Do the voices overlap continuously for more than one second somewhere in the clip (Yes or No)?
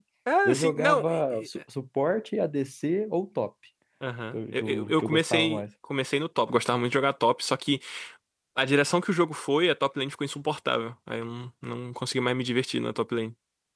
Yes